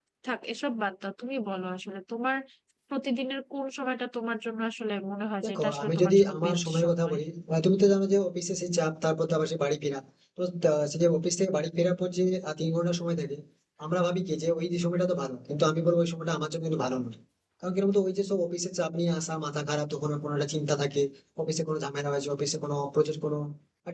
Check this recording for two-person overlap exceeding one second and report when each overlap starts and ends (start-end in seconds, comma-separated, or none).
5.4-7.2